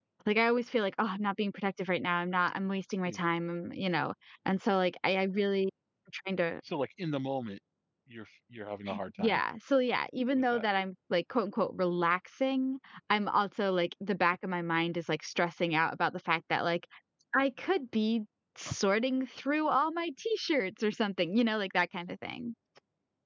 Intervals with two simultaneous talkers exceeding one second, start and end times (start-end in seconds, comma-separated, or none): none